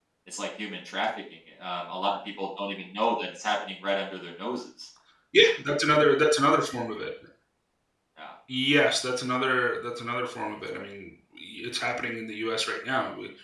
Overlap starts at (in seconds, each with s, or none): none